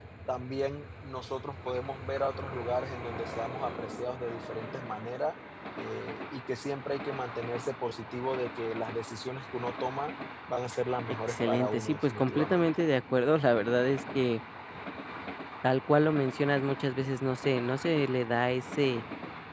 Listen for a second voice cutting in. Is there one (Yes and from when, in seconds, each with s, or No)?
Yes, from 11.3 s